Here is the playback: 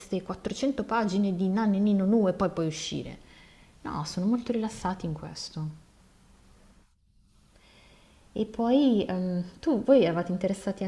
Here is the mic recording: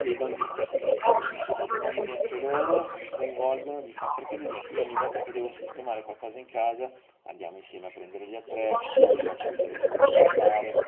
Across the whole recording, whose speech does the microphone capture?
both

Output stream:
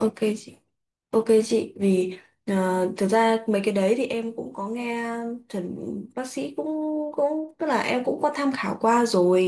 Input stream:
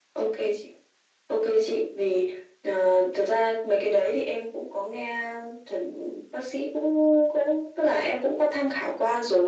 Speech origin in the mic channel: echo only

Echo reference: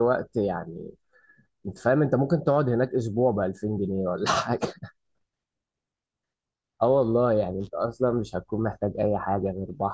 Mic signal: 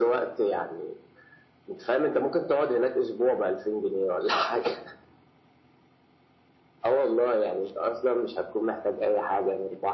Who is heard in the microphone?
echo only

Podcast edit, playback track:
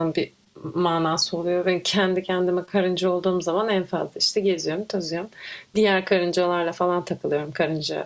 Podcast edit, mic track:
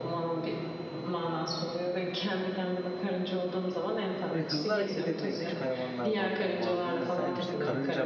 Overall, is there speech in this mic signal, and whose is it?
both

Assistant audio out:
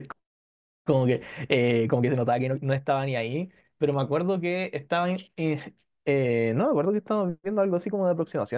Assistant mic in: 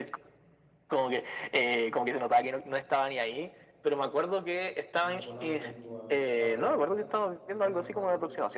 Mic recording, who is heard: both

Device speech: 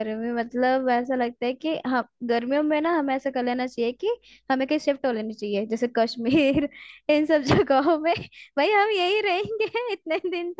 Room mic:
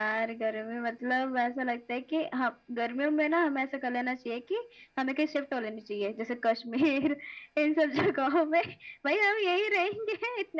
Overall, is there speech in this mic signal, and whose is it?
echo only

